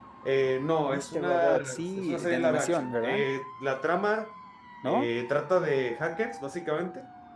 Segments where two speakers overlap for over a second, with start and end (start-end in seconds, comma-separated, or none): 0.9-3.2